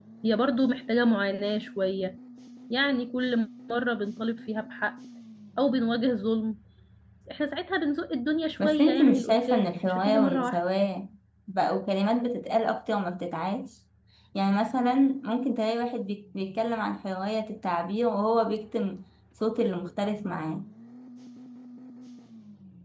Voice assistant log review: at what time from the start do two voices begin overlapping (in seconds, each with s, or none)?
8.6 s